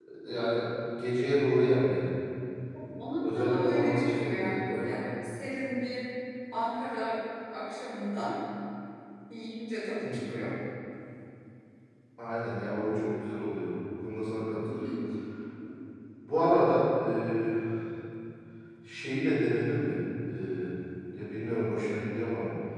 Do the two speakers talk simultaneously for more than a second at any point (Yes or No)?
Yes